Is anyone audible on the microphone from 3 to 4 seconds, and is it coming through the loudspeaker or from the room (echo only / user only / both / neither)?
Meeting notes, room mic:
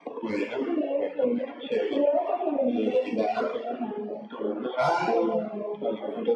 echo only